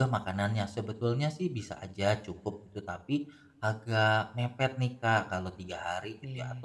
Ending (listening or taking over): listening